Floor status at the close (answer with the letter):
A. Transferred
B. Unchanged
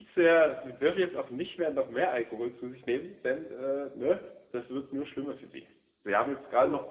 B